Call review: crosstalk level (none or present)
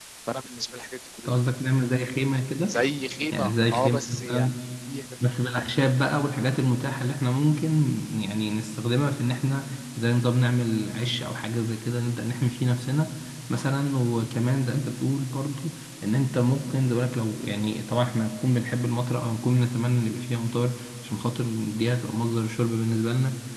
present